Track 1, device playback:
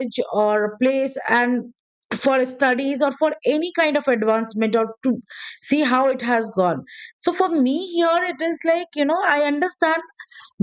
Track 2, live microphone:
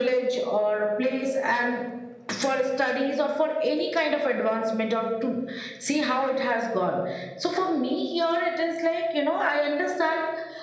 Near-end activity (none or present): none